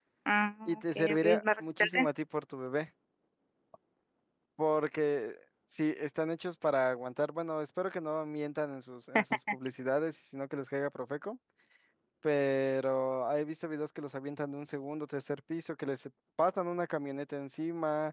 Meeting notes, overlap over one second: present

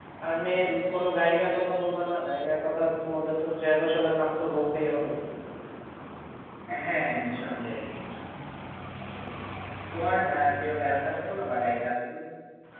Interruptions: none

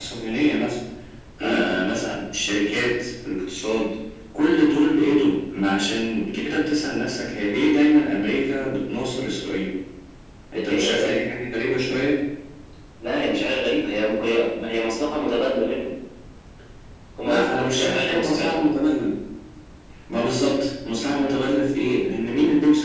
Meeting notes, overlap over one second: present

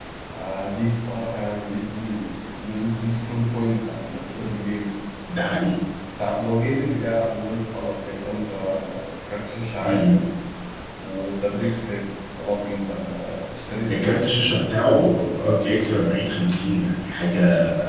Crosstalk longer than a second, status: none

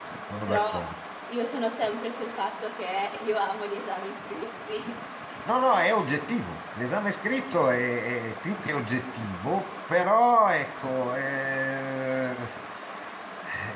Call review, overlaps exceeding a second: none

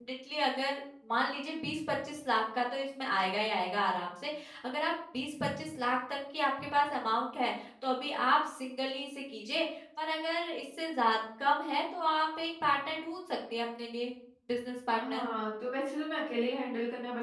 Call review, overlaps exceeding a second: none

